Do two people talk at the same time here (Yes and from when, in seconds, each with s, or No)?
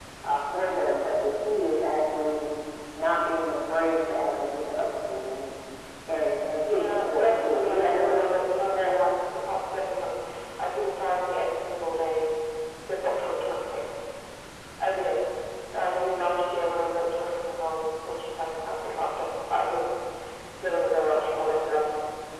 Yes, from 6.7 s